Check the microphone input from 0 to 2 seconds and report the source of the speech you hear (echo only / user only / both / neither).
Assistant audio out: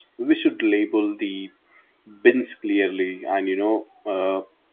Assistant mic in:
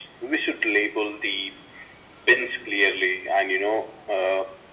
echo only